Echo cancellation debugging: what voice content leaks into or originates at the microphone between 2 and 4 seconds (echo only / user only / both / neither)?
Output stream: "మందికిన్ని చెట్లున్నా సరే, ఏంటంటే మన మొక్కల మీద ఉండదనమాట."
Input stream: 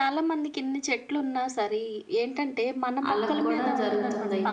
both